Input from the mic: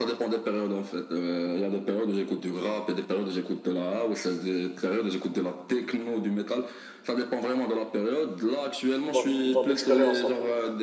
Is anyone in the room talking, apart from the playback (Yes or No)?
Yes